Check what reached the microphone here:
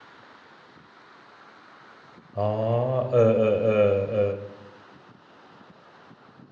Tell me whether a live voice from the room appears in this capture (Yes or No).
Yes